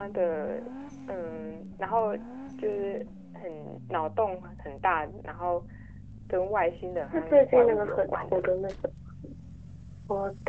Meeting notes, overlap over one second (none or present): present